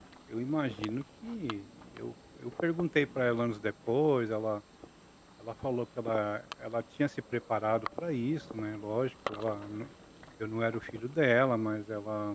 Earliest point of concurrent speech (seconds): none

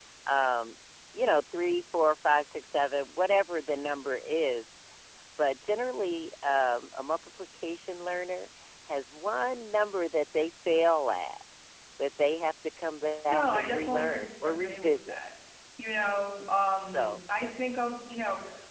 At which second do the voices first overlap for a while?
13 s

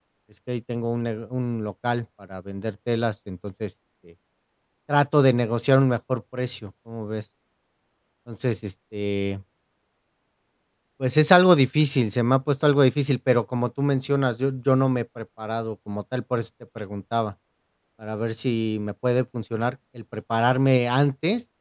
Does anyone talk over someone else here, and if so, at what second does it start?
none

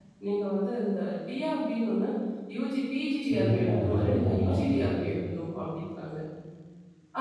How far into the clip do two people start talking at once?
3 s

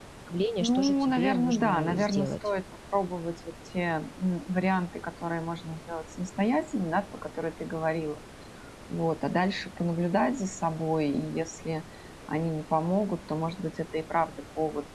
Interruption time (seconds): 1 s

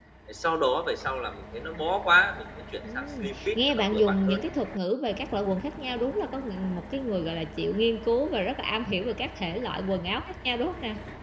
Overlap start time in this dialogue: 3 s

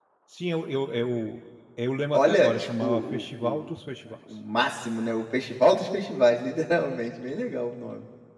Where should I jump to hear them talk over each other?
2 s

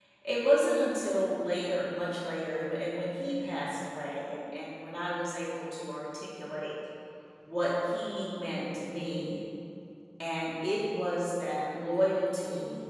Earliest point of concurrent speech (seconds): none

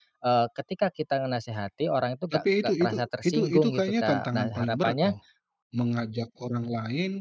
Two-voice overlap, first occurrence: 2 s

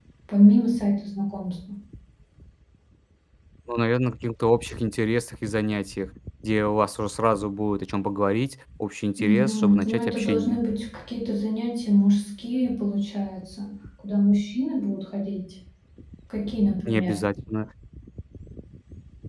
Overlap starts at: 9 s

